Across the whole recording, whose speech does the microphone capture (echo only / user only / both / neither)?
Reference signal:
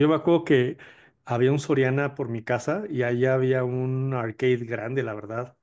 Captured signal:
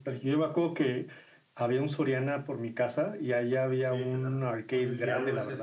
both